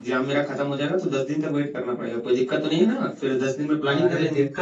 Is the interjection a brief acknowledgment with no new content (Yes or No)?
No